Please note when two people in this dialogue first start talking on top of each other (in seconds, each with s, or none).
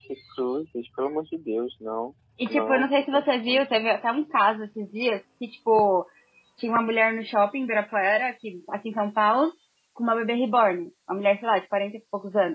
2.4 s